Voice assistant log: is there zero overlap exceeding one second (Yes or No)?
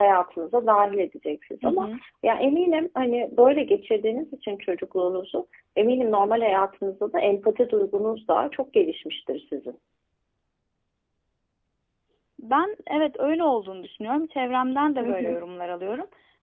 Yes